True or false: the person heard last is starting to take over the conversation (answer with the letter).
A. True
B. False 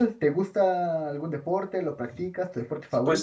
A